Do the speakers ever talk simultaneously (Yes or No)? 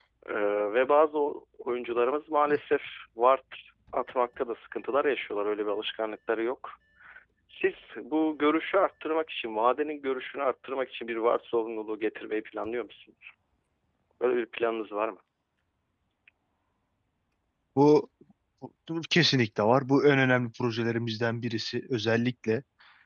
No